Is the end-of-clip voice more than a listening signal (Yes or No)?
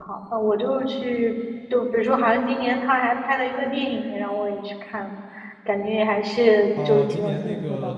Yes